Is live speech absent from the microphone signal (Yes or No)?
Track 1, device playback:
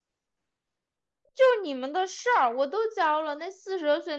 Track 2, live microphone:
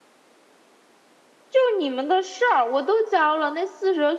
Yes